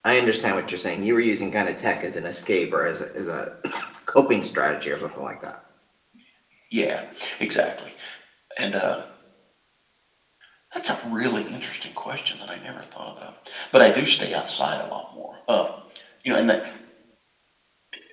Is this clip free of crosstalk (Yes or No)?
Yes